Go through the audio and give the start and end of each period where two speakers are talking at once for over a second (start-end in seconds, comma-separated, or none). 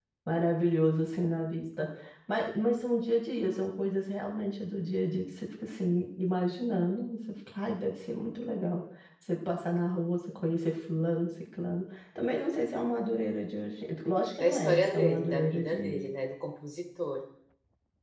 14.4-16.0